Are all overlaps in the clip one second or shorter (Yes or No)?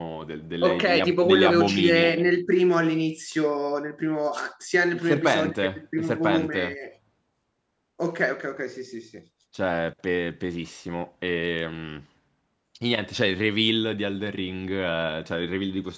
No